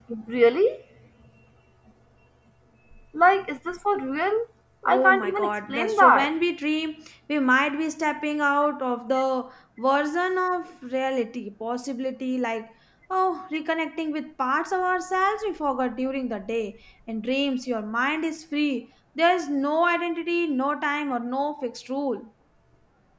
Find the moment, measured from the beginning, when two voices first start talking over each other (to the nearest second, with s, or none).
5 s